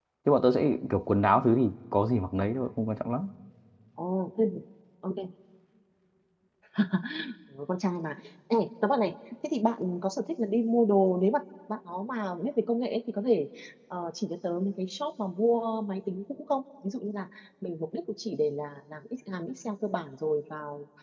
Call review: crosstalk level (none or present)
none